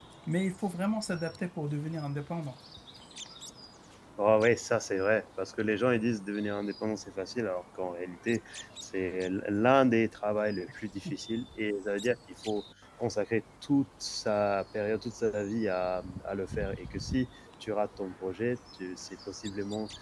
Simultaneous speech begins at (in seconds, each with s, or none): none